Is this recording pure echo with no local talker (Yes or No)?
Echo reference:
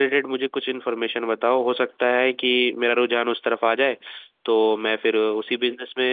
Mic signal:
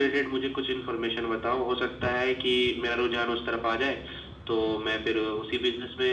Yes